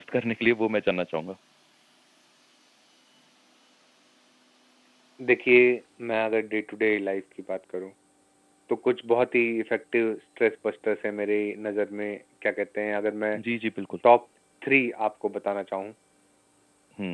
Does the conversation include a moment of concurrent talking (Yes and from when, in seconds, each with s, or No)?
No